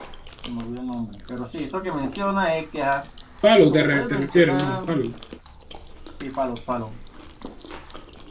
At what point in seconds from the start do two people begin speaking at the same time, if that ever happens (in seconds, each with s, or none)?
3.6 s